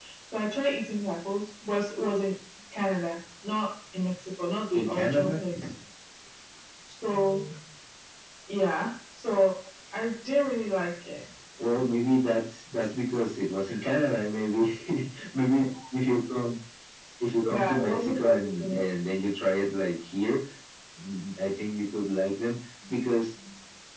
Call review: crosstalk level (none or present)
present